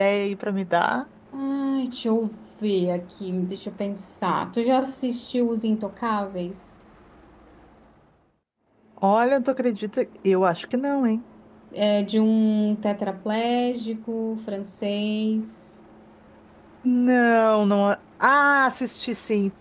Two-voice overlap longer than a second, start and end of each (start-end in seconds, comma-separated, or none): none